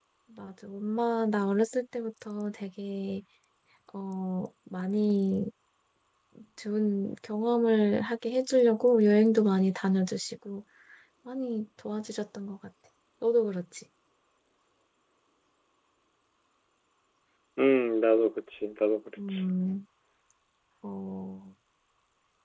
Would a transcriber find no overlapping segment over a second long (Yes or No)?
Yes